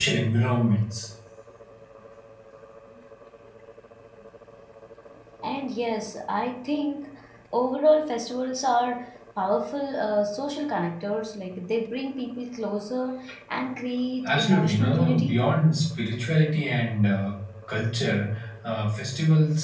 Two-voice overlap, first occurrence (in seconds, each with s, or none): 14.2 s